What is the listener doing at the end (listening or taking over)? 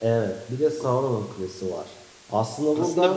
taking over